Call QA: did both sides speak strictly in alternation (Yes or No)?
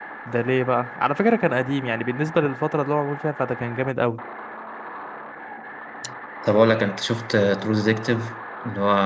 Yes